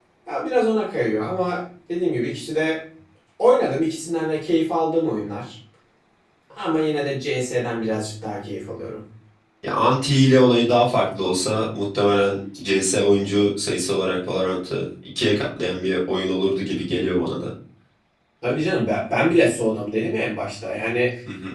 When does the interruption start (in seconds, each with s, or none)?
none